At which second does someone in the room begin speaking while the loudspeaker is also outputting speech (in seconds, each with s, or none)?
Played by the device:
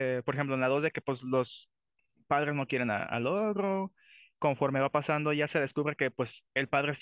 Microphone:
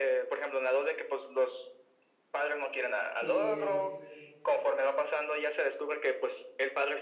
3.2 s